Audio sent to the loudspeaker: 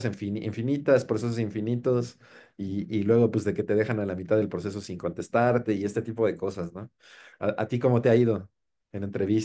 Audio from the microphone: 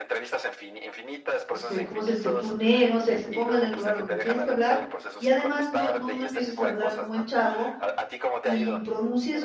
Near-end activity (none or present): present